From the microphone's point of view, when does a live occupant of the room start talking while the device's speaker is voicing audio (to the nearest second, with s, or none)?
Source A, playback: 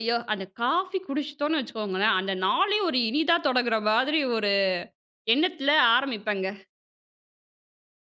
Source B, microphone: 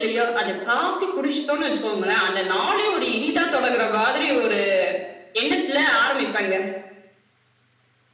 none